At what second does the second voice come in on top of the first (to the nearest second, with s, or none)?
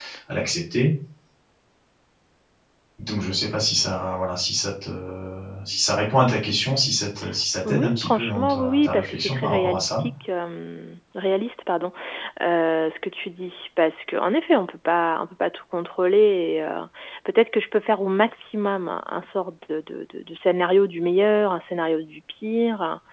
8 s